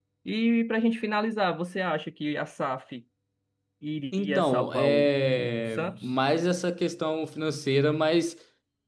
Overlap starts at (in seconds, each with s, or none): 4.1 s